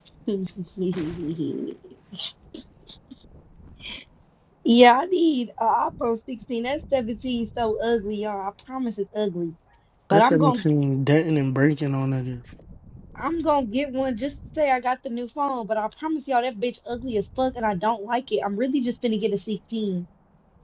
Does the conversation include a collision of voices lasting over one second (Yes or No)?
No